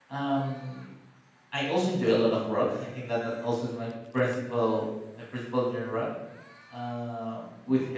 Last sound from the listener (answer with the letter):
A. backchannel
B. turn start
A